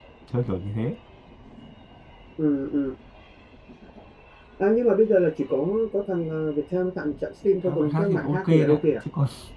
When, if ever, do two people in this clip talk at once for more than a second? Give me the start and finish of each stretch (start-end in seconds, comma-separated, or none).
7.7-8.9